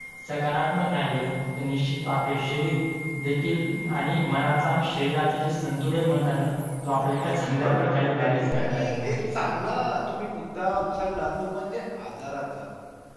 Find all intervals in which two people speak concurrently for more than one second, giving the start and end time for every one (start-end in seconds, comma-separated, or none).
7.3-9.4